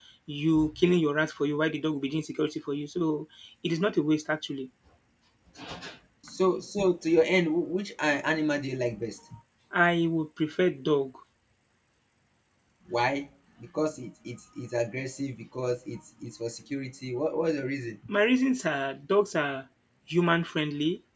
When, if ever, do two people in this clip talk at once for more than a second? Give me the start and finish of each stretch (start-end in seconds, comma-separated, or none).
none